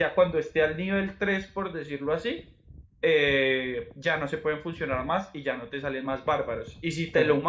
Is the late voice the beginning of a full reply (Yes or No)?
No